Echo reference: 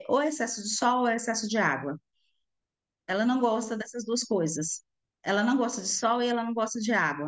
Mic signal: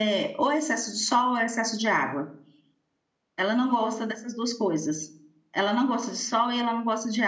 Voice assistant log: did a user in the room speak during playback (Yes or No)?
No